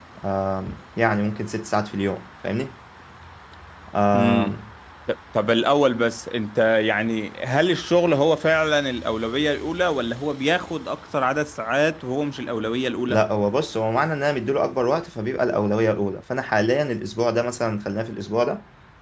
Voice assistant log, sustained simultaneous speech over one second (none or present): none